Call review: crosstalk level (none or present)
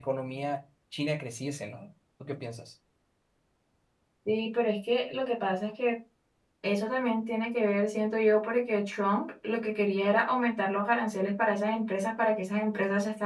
none